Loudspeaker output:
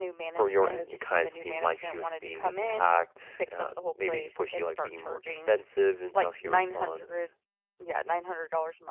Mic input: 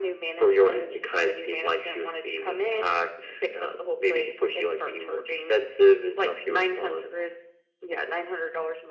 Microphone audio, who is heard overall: echo only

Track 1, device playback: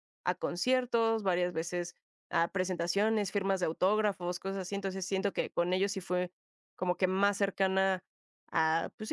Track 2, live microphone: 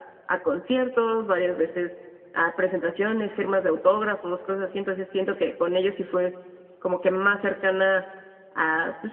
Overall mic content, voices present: echo only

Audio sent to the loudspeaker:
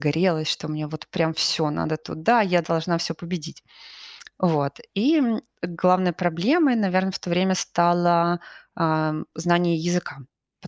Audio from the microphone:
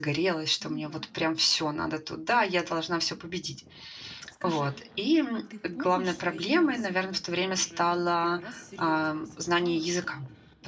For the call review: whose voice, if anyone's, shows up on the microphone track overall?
both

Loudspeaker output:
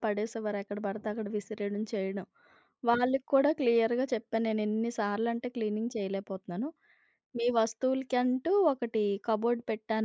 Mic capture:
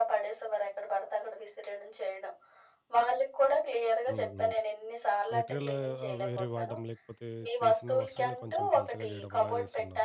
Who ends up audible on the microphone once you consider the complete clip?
both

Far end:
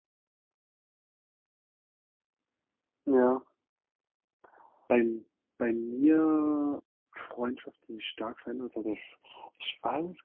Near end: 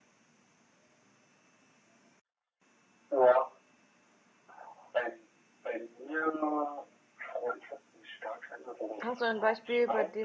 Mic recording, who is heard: both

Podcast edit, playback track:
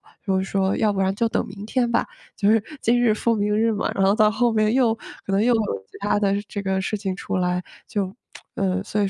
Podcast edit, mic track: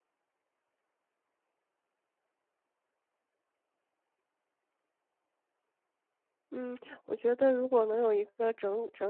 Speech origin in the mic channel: user only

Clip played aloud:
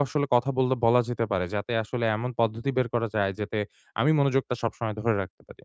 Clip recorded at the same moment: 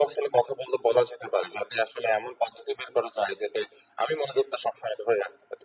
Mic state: echo only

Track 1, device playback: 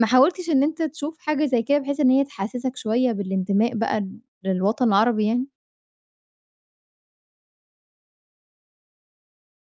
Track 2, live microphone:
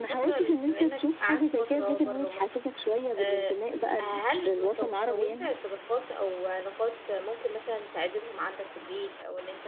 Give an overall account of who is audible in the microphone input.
both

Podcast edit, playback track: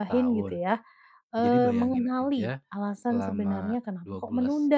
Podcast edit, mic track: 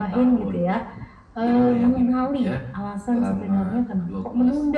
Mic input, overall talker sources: echo only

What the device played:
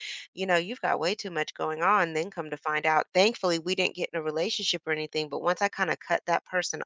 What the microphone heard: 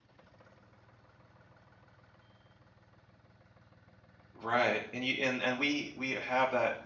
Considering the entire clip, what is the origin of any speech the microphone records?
user only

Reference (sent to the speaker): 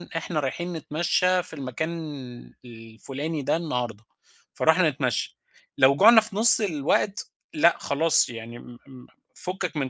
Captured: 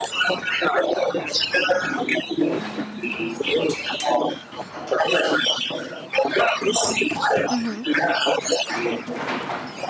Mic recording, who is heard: both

